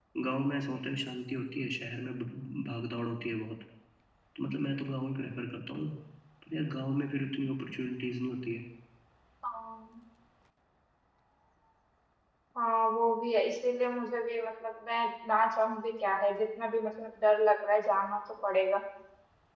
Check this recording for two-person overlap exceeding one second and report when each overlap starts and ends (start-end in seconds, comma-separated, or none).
none